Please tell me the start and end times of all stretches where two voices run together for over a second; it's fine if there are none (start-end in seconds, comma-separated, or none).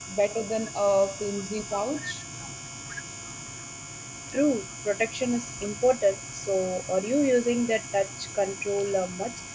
none